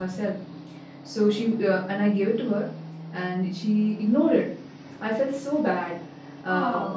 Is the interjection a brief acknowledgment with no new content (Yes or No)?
Yes